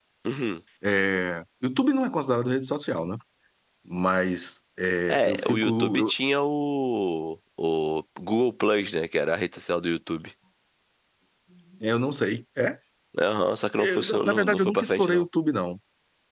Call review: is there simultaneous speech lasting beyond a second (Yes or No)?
Yes